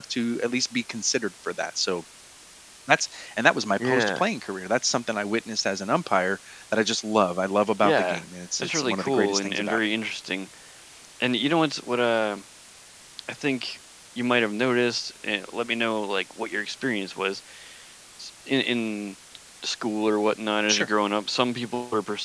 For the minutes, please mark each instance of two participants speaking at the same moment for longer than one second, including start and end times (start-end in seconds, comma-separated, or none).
8.6-9.9